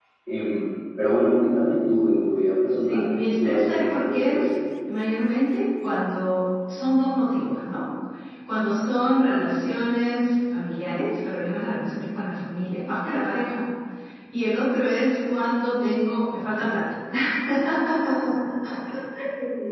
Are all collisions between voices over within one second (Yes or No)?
No